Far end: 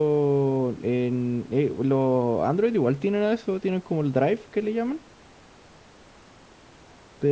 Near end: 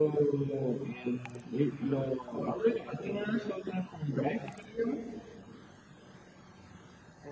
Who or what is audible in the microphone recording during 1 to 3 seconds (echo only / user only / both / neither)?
echo only